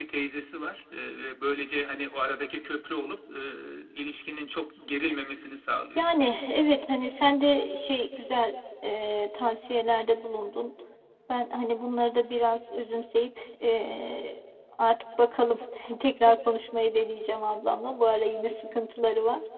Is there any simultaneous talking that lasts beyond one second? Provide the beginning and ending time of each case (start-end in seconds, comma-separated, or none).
none